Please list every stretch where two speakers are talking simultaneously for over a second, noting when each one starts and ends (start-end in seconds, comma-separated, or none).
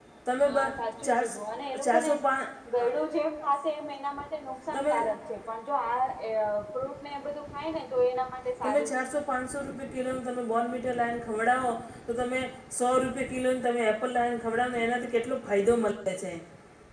none